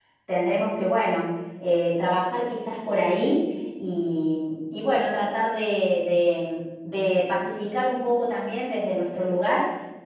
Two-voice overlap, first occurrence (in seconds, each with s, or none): none